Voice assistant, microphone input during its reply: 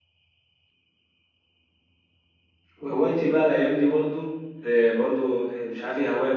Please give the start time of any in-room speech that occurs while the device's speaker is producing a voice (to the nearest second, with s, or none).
3 s